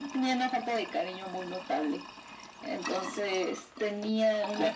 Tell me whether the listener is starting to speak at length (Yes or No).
No